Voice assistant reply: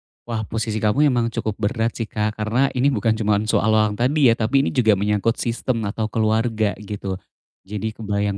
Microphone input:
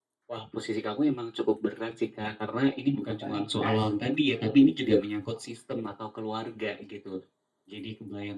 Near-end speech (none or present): present